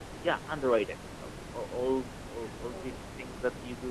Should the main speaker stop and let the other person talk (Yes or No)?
No